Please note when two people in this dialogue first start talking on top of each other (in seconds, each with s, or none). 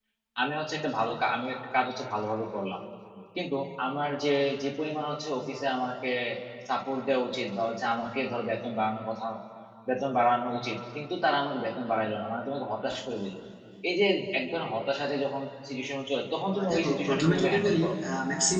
16.5 s